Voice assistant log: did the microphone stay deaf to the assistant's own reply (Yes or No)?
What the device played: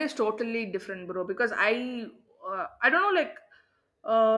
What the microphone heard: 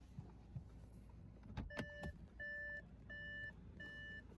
Yes